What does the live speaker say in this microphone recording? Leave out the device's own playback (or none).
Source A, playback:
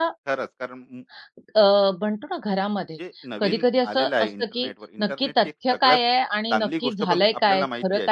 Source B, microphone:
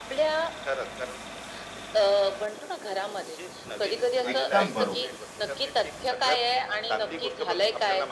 एकदम बरोबर.